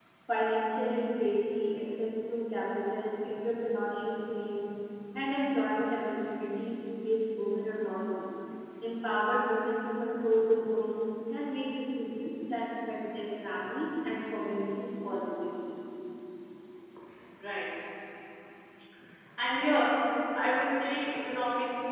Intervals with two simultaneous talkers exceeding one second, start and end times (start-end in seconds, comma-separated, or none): none